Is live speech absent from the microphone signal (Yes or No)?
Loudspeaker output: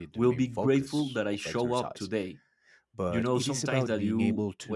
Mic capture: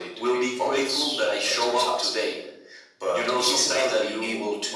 Yes